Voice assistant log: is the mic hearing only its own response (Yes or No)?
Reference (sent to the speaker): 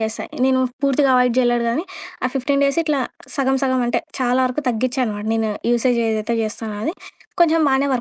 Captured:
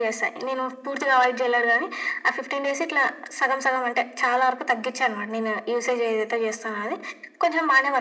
Yes